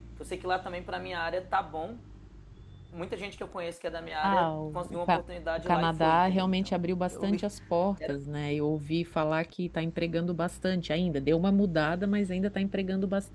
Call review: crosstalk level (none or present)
present